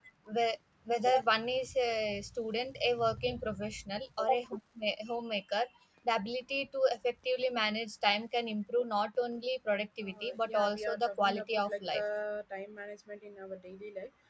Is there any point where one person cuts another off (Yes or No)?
Yes